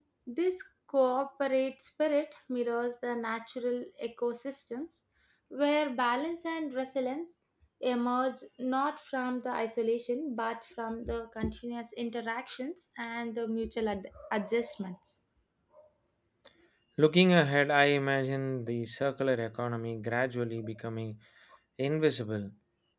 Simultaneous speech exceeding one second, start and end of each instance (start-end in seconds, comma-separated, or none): none